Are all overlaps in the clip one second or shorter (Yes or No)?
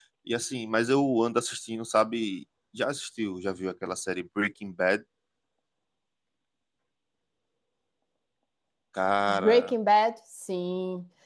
Yes